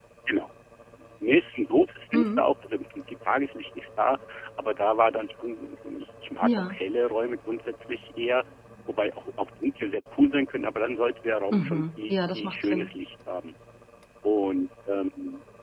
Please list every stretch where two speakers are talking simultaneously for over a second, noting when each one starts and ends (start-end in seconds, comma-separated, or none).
11.5-12.9